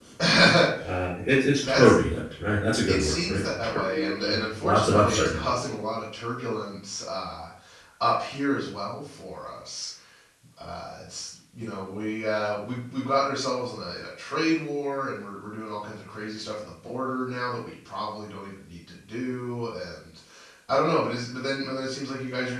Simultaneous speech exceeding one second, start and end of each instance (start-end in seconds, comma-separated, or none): 2.9-5.5